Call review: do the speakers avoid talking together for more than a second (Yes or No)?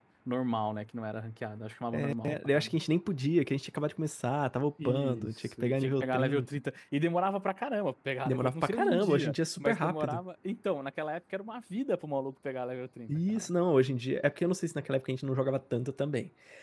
No